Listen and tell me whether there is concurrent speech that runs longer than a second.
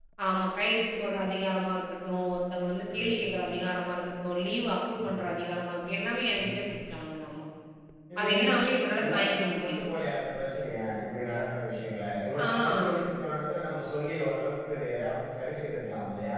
Yes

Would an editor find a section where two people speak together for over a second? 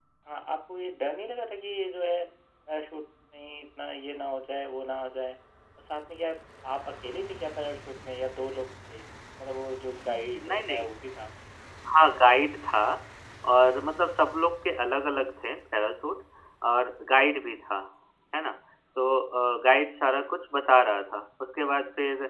No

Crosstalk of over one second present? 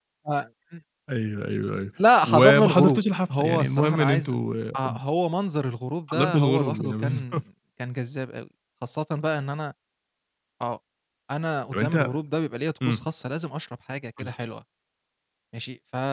Yes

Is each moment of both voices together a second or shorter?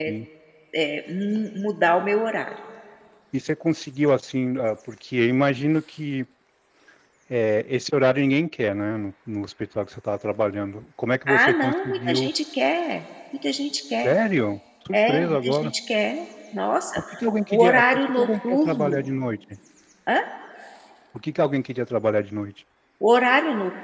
No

